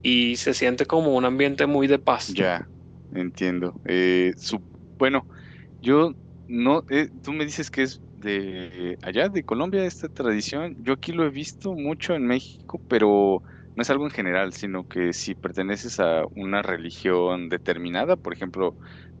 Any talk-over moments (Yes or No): No